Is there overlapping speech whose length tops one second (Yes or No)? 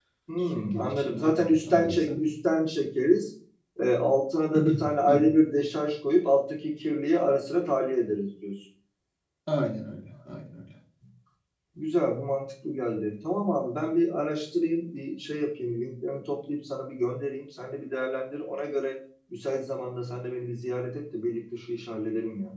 Yes